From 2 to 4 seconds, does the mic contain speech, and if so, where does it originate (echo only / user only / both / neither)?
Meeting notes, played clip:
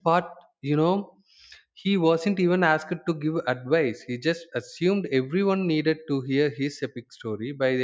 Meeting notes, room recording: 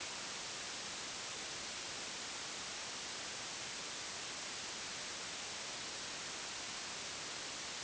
neither